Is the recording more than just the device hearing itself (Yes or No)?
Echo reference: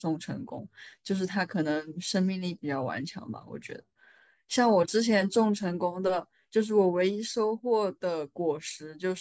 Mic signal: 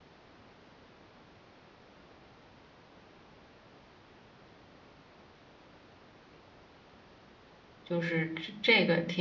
Yes